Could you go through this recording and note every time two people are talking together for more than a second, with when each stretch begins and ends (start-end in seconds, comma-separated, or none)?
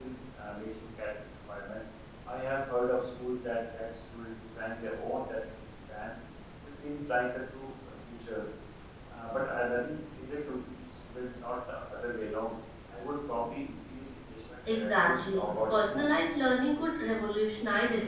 14.7-16.1